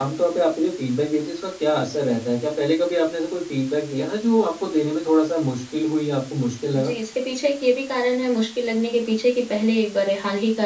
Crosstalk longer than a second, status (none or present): none